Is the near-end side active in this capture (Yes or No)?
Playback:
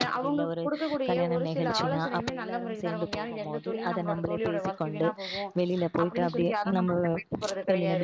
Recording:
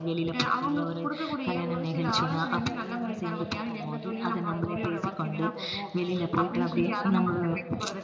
Yes